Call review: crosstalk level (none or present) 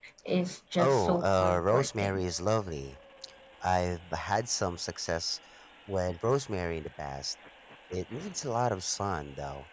present